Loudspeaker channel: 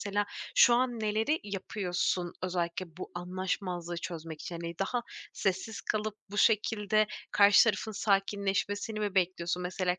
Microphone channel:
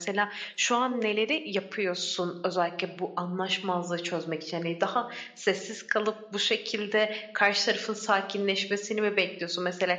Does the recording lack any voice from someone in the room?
No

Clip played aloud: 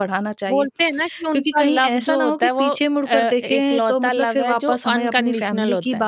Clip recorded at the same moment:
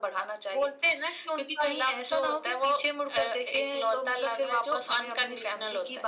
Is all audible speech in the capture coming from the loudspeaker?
Yes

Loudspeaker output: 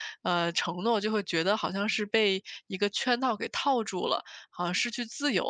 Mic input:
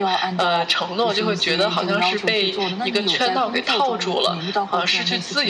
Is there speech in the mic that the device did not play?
Yes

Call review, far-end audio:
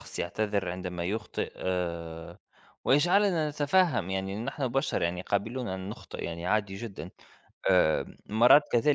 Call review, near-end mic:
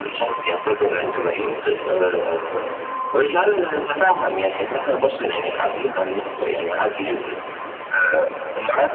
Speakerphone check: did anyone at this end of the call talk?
No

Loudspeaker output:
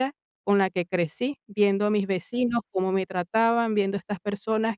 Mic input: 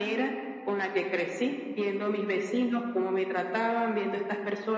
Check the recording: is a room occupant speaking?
No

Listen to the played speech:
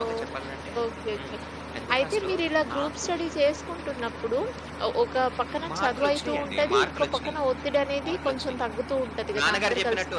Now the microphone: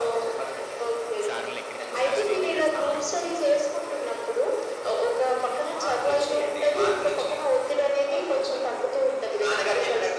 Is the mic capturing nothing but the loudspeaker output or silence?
No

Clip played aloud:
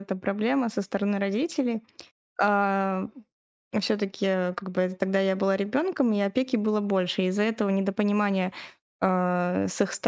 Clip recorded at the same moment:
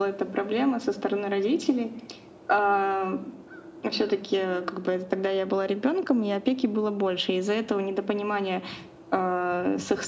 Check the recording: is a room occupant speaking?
No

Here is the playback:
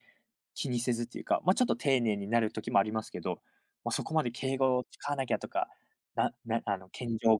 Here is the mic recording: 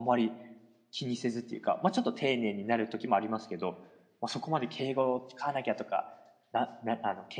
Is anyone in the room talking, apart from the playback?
No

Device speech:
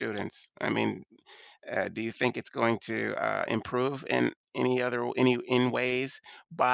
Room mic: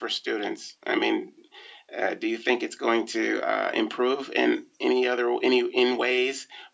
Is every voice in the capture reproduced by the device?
Yes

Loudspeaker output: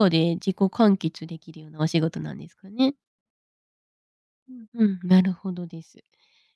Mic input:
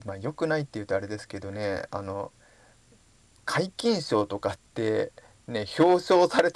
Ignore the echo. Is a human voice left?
Yes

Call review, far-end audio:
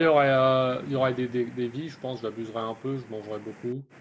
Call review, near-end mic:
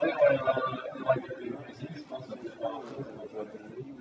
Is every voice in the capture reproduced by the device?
No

